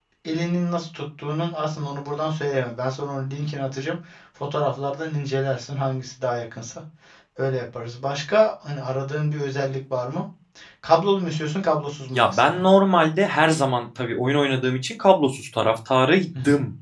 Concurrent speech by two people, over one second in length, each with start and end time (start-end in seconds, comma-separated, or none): none